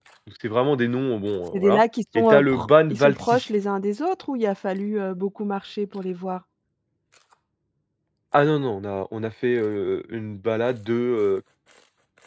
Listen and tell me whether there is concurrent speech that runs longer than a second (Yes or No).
Yes